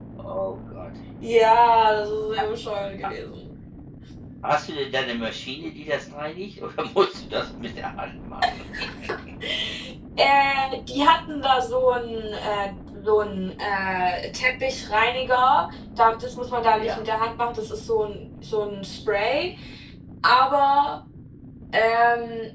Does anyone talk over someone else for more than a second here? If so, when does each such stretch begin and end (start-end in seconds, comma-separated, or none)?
none